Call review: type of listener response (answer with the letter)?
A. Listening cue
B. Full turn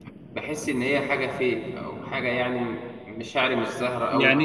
B